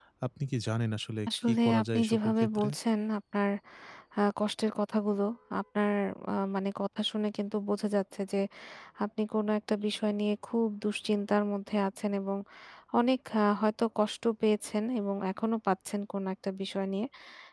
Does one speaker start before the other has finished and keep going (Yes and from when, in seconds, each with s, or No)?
Yes, from 1.3 s